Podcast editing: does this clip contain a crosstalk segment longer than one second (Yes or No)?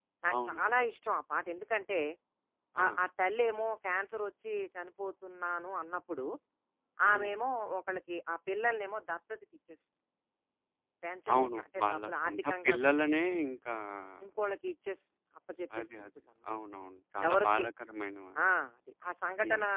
Yes